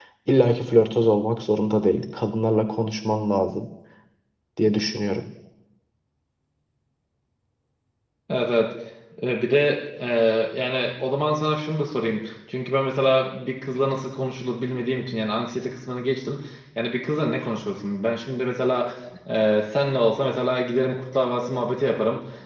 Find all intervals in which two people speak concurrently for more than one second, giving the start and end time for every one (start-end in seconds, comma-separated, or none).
none